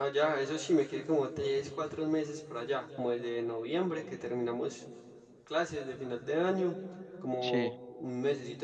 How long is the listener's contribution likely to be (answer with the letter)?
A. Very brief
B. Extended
A